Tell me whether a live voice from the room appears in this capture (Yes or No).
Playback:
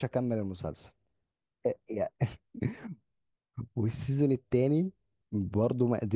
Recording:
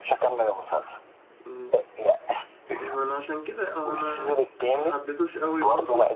Yes